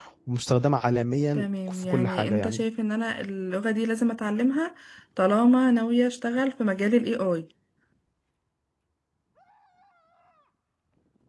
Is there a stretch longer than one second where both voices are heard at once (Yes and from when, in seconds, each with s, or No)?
Yes, from 1.4 s